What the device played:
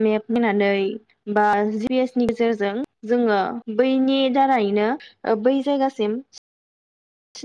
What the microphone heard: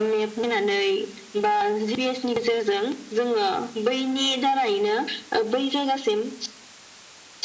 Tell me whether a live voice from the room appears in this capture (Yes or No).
No